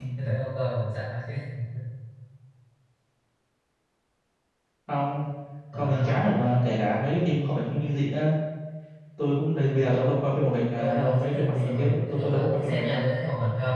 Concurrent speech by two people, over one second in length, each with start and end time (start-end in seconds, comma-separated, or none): 10.8-13.0